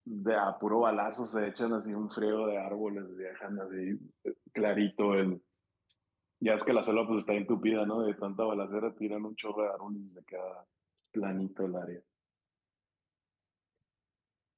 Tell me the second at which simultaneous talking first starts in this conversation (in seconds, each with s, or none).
none